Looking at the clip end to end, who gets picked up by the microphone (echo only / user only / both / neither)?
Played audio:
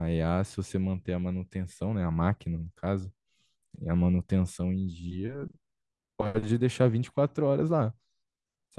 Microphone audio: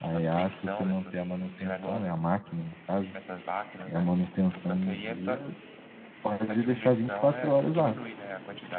both